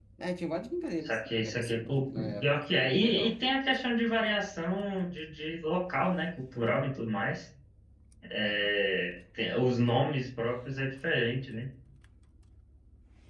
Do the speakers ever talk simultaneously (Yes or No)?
Yes